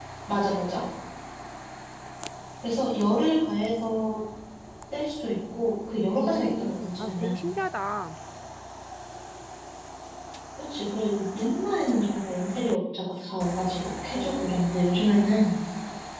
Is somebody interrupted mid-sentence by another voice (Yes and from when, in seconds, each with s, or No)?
Yes, from 6.2 s